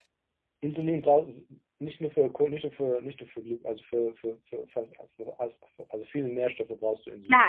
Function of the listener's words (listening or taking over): taking over